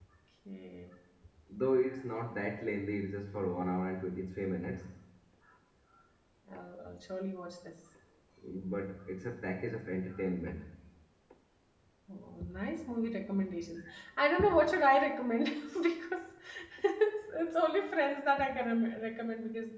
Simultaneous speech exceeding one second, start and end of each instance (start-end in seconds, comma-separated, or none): none